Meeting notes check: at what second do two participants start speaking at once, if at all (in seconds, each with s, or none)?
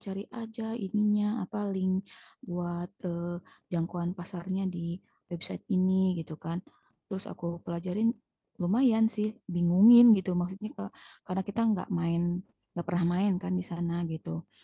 none